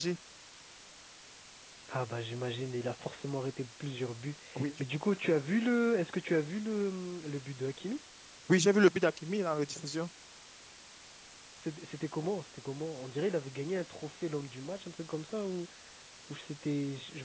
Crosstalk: none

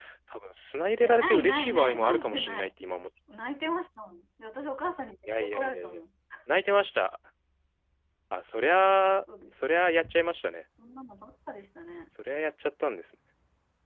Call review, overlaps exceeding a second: present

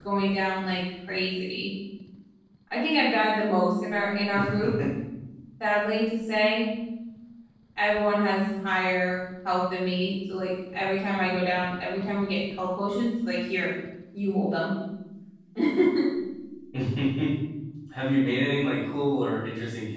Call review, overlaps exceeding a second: none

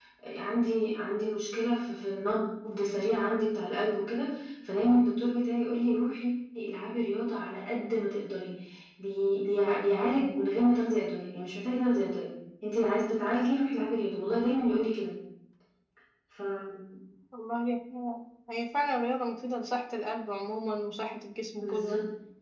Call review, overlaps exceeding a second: none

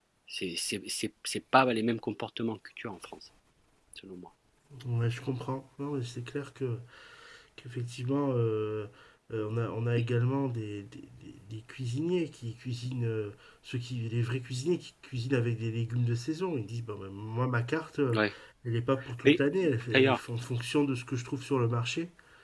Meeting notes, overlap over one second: none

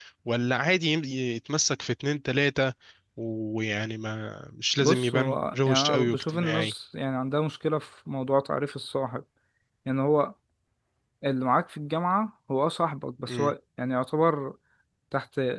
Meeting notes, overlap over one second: present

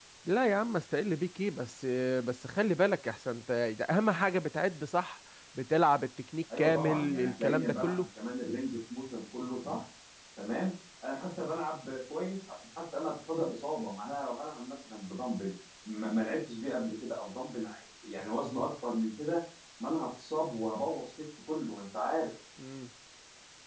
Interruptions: present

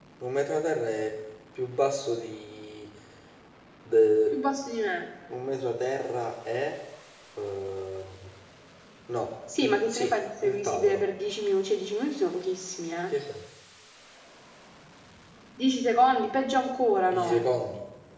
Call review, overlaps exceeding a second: present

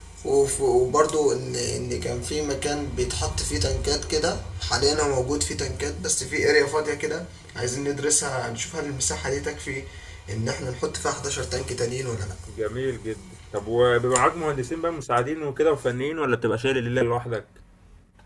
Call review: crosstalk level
none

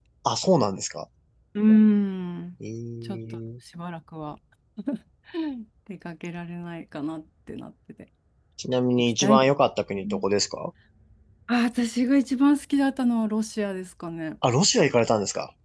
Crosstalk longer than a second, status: none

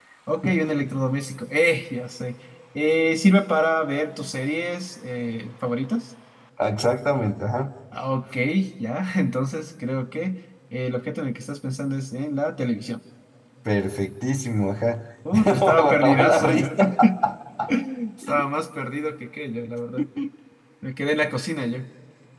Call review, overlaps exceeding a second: present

